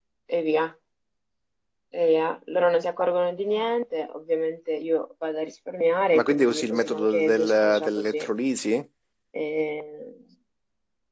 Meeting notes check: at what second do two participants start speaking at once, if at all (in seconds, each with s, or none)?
6.1 s